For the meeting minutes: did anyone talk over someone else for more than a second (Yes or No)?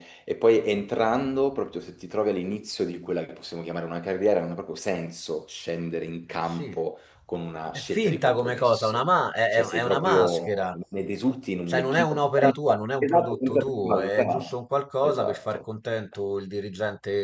Yes